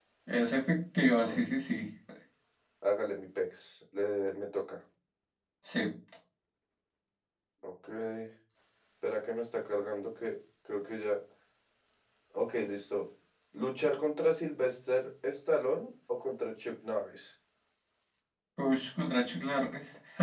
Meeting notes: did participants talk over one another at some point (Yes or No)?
No